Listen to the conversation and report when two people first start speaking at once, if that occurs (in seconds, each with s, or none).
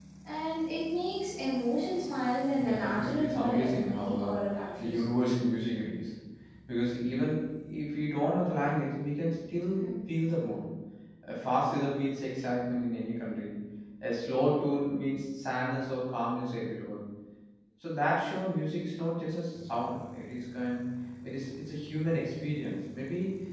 2.6 s